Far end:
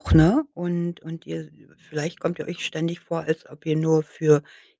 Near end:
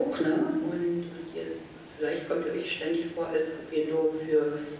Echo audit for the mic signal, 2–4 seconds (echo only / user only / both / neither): echo only